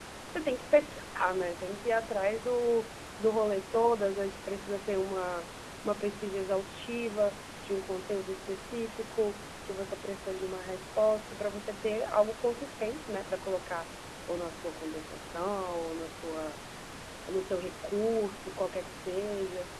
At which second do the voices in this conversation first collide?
none

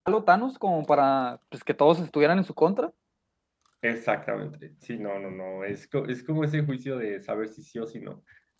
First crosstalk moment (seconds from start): none

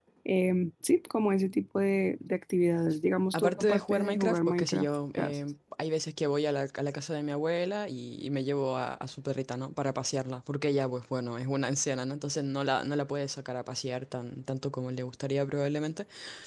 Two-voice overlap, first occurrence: 3 s

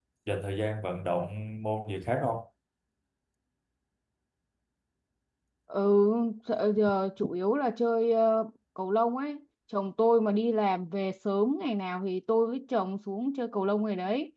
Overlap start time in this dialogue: none

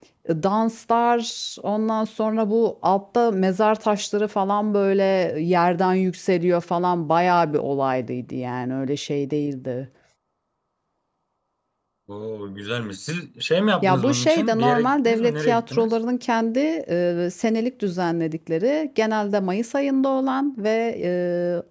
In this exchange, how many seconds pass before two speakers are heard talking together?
14 s

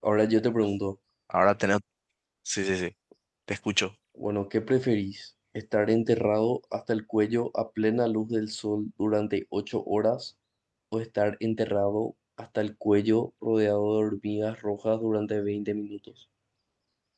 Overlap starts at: none

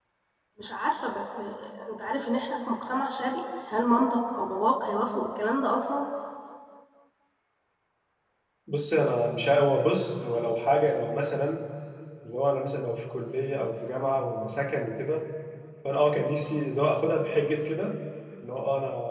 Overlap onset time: none

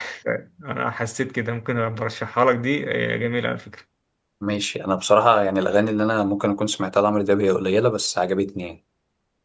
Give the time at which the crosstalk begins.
none

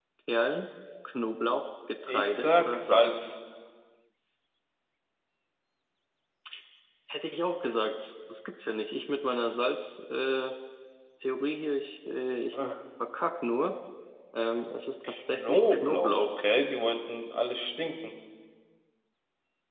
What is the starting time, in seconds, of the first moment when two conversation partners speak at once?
2 s

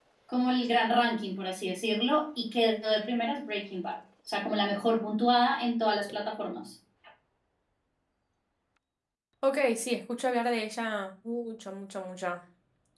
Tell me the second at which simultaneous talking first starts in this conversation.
none

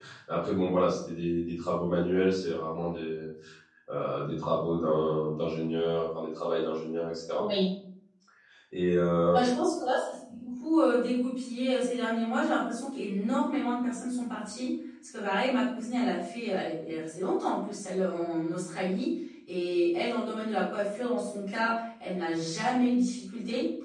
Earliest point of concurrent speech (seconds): none

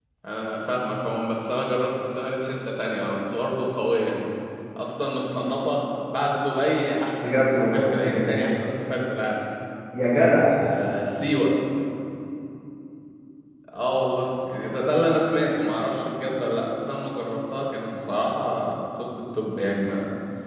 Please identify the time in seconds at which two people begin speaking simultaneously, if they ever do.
7 s

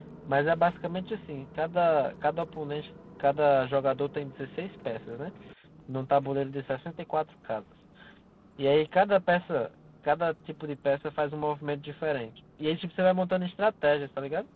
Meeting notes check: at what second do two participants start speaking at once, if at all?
none

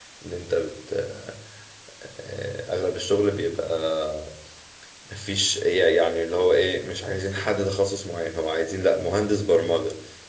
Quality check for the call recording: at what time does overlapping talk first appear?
none

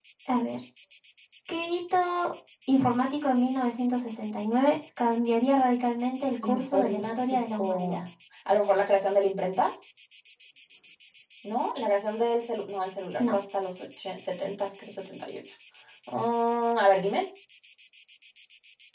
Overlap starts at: 6 s

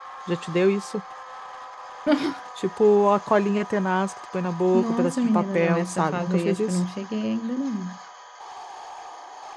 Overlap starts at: 5 s

